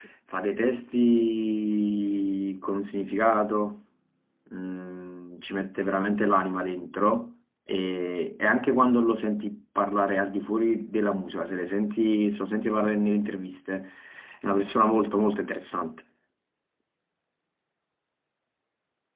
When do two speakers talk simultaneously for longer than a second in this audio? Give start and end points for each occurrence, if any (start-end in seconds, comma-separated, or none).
none